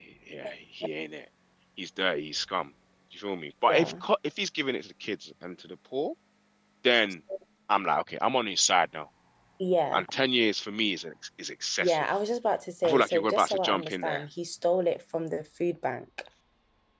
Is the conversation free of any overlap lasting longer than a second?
No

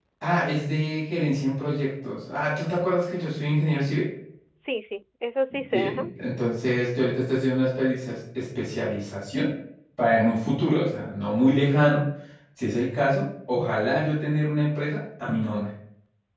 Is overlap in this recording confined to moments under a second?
Yes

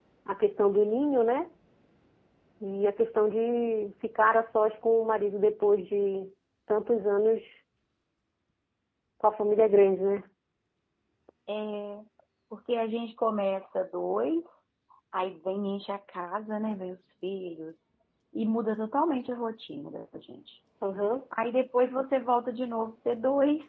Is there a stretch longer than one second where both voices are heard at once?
No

